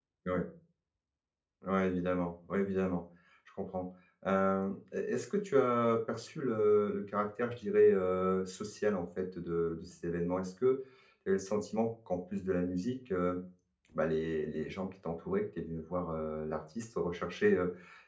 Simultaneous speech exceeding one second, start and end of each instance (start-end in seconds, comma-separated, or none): none